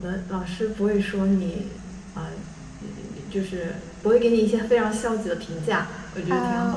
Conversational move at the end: taking over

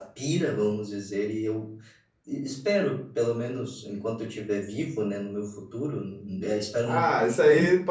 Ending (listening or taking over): taking over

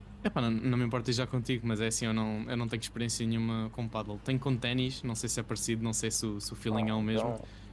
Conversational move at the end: taking over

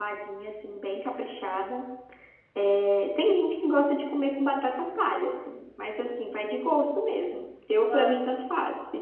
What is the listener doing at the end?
listening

